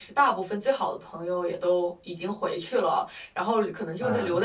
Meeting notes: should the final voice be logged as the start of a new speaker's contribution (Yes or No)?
No